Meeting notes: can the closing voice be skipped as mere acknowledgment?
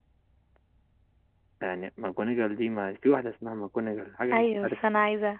No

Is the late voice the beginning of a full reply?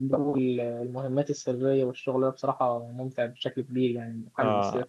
Yes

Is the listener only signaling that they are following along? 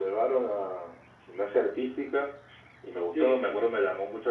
Yes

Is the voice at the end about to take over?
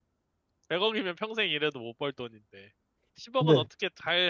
No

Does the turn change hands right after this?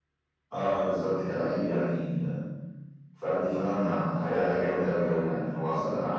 No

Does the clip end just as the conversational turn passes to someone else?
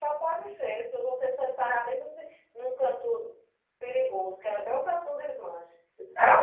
Yes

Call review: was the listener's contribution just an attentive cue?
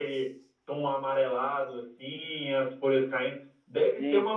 Yes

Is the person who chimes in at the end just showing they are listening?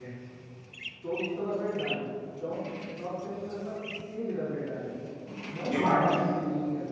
Yes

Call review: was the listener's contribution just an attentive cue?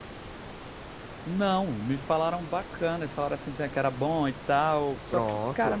Yes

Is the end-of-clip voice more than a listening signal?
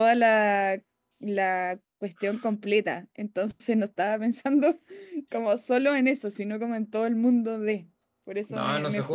Yes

